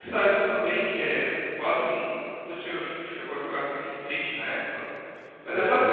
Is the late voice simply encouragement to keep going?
No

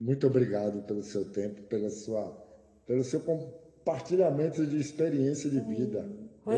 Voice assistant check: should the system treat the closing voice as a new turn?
Yes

